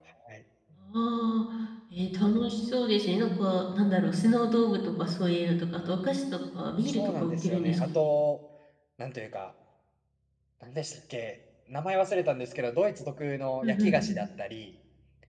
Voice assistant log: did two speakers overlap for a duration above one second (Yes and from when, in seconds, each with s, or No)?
Yes, from 6.9 s